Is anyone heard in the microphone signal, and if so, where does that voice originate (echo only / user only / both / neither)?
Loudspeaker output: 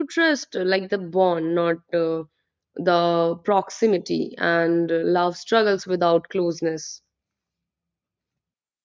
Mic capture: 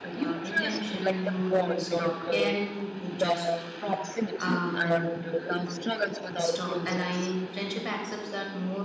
both